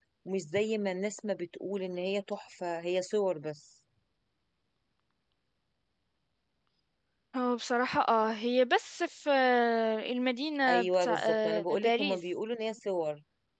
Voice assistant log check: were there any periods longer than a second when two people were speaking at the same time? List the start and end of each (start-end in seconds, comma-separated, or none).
10.7-12.2